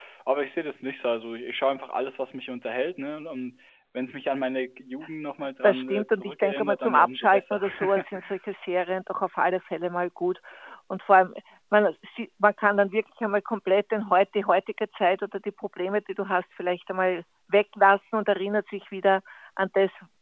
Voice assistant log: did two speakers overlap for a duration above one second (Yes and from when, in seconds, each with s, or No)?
Yes, from 5.6 s